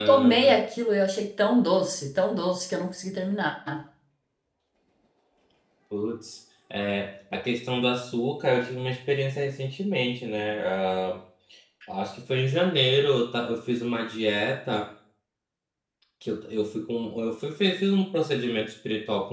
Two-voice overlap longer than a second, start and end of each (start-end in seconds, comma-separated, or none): none